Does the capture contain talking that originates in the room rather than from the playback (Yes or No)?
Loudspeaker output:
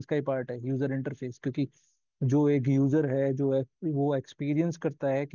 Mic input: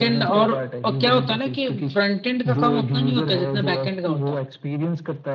Yes